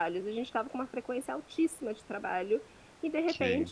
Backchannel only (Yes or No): Yes